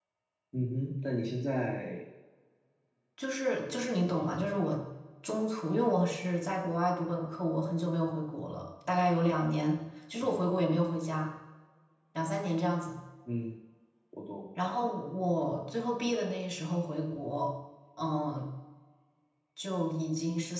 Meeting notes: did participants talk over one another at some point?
No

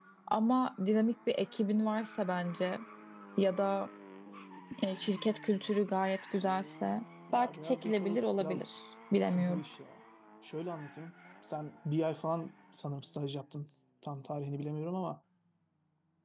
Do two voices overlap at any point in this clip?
Yes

